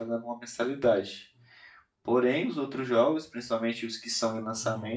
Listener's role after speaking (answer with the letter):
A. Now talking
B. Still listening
B